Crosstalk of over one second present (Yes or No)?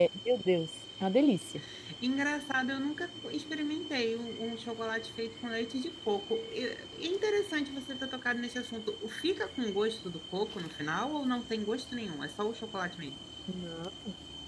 No